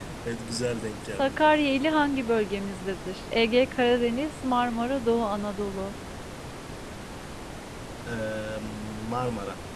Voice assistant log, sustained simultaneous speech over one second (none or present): none